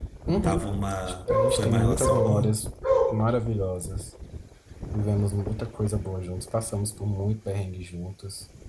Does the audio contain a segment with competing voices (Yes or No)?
Yes